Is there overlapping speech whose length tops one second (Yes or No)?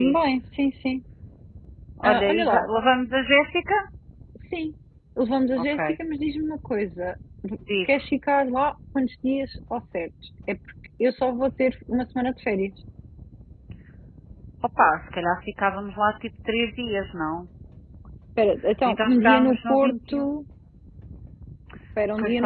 Yes